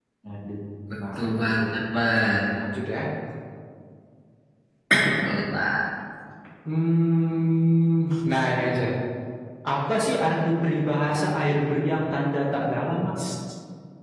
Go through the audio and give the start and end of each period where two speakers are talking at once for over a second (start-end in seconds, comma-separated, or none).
1.2-2.4